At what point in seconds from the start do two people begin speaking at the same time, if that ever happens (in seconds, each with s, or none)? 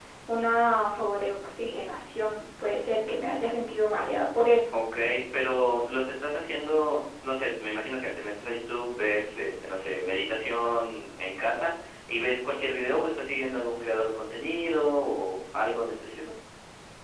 none